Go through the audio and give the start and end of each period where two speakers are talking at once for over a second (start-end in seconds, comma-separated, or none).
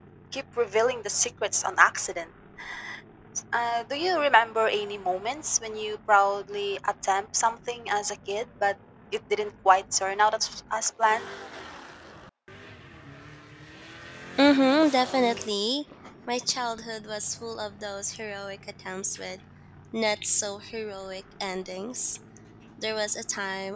none